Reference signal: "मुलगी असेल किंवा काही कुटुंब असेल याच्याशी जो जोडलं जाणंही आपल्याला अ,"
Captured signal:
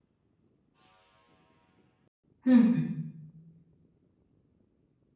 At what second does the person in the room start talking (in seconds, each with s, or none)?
2.5 s